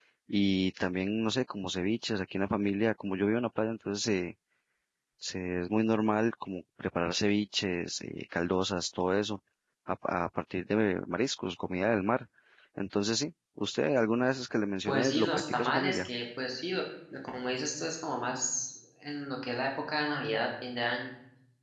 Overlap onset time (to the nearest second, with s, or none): 15 s